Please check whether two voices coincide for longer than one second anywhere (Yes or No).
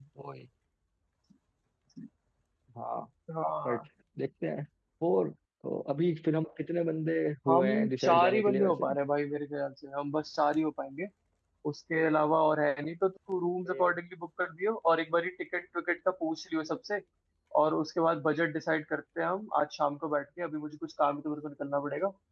Yes